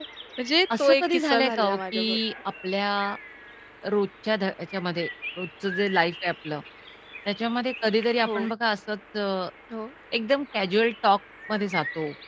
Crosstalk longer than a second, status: present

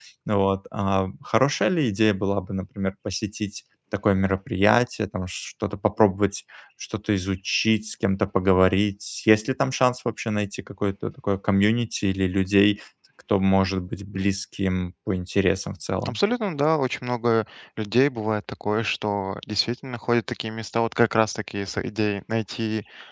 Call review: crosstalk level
none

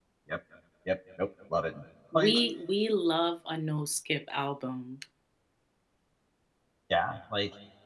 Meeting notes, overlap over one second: none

